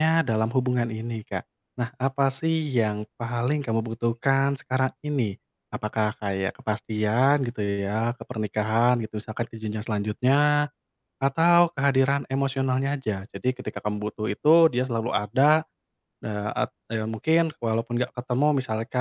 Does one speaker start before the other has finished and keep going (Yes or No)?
No